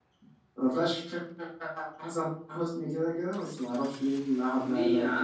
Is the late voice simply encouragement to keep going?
No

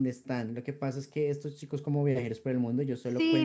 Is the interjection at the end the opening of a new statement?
Yes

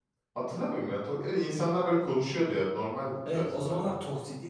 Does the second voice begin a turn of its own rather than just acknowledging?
Yes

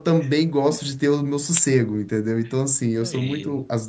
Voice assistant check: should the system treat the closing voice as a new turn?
No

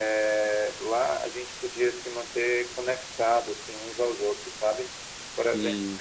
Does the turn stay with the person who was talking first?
Yes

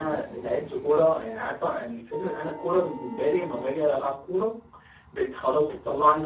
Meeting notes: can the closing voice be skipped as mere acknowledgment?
Yes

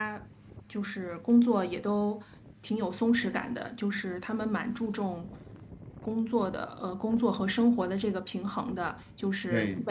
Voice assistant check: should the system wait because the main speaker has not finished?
Yes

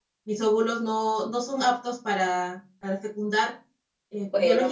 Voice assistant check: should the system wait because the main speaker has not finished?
Yes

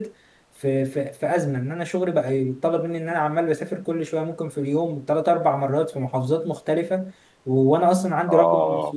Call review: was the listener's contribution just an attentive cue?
Yes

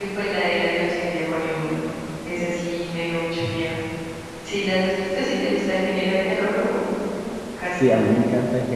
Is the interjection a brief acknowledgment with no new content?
No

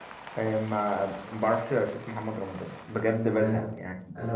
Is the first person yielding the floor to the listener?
Yes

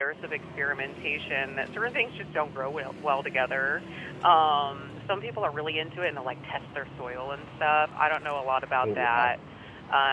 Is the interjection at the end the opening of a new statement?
No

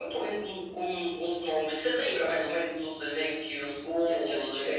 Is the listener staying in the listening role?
No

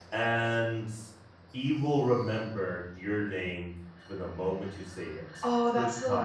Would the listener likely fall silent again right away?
No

